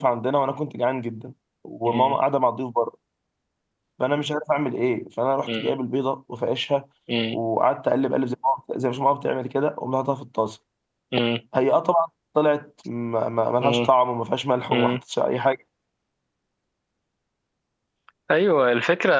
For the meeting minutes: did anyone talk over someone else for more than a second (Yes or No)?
No